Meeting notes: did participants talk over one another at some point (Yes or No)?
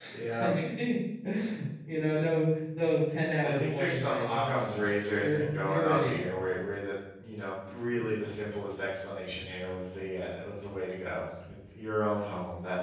Yes